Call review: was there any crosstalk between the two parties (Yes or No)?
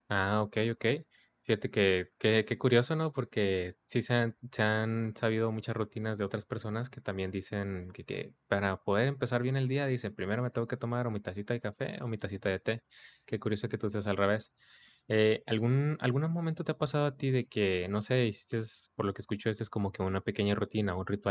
No